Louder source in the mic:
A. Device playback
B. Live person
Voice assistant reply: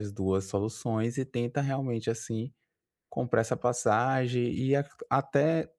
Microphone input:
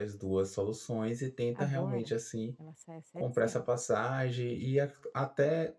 A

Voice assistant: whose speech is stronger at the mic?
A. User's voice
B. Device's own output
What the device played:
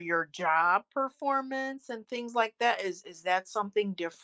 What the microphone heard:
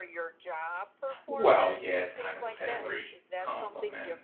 A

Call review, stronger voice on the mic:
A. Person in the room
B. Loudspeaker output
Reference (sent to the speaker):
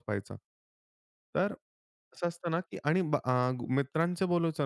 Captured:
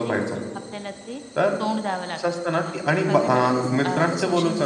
B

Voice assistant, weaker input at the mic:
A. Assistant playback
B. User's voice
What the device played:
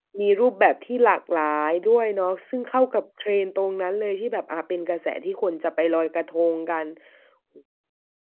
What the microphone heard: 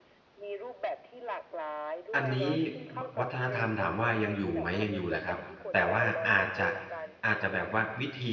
A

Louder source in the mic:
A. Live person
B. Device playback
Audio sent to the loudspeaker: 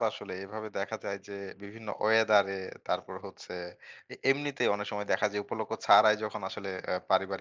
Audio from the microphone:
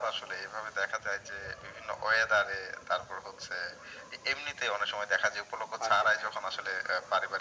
B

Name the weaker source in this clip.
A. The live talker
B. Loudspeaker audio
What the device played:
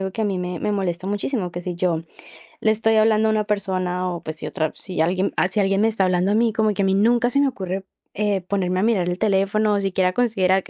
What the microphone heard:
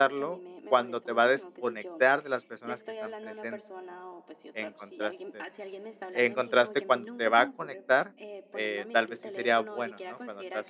B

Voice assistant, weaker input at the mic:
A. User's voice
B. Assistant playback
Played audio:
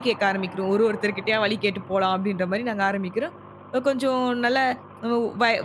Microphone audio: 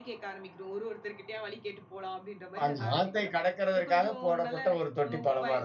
B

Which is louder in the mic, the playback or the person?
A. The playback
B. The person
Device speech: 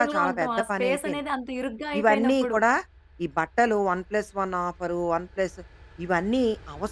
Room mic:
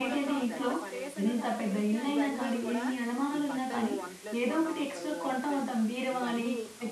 B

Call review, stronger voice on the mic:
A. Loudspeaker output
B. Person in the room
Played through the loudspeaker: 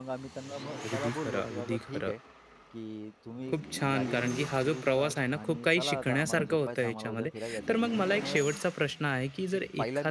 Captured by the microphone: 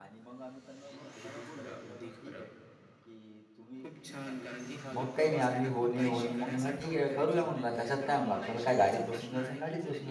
B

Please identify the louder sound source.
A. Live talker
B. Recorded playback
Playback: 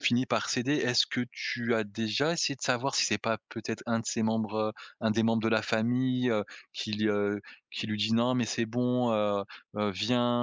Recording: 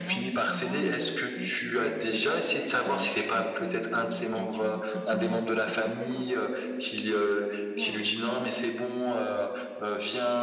B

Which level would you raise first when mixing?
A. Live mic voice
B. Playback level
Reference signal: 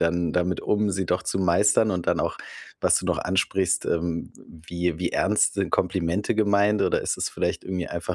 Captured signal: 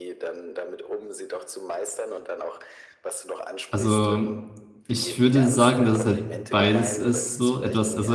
B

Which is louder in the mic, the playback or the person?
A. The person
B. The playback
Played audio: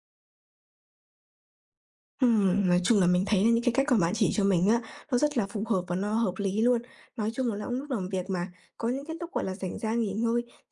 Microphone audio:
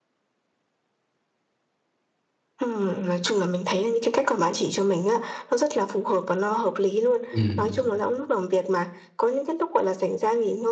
A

